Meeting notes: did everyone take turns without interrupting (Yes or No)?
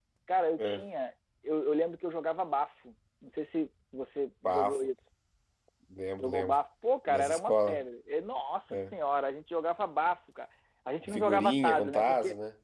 No